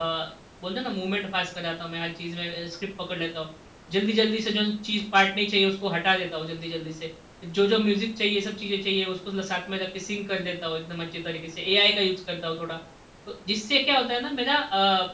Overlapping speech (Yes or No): No